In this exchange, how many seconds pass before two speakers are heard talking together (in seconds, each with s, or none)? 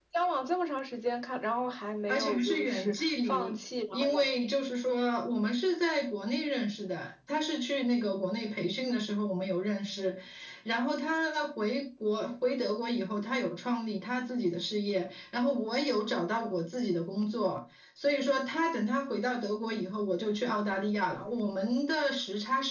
2.1 s